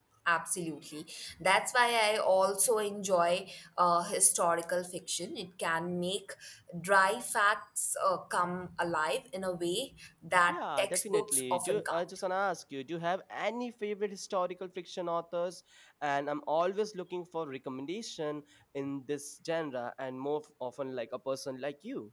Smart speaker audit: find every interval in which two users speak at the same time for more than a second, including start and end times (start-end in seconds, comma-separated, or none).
10.5-12.0